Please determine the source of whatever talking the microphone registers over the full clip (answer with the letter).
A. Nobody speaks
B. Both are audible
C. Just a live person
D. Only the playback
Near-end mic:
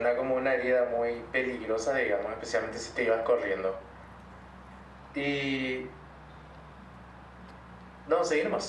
D